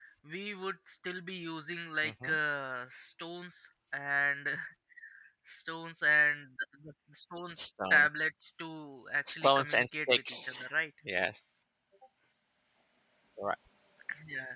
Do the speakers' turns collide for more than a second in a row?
Yes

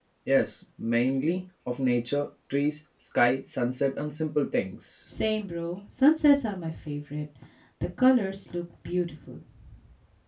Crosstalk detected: No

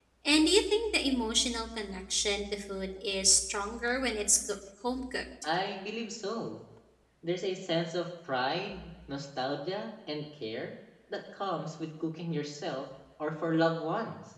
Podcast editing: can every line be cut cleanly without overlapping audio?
Yes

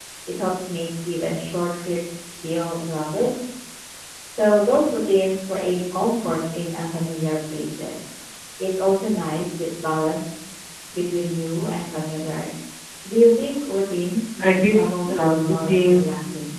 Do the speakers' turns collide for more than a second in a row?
Yes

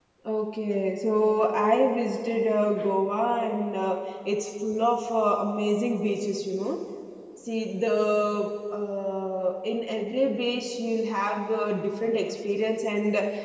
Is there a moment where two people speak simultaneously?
No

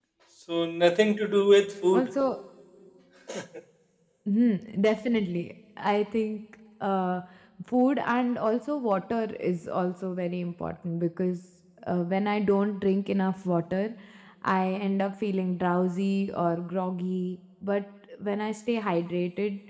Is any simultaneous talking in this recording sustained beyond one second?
No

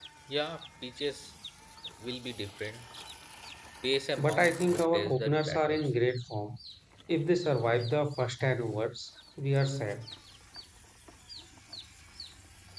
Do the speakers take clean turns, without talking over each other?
No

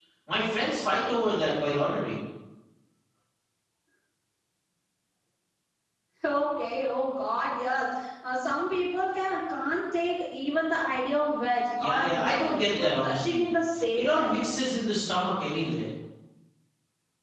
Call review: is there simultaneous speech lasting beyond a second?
Yes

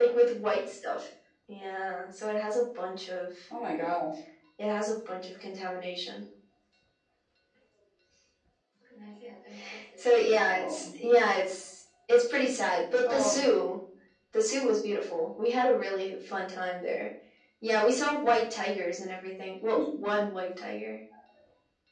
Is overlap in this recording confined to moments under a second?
Yes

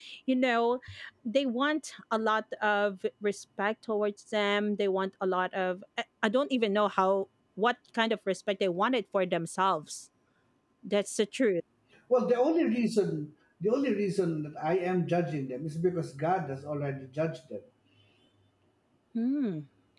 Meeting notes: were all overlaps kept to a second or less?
Yes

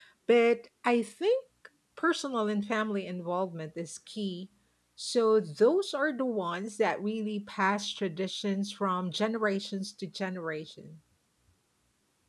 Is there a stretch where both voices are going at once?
No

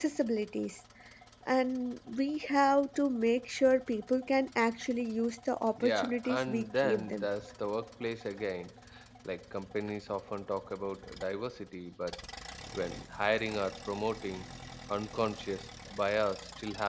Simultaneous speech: Yes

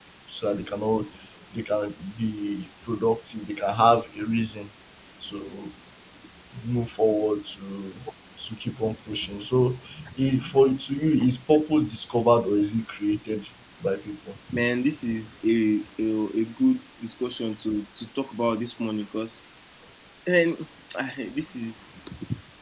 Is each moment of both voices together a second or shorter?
Yes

